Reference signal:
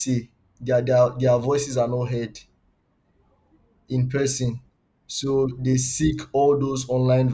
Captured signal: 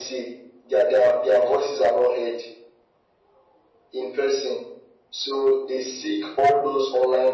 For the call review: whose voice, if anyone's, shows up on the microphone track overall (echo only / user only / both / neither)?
echo only